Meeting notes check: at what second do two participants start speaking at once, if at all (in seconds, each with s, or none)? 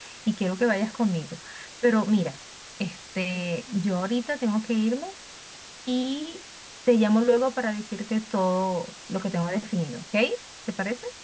none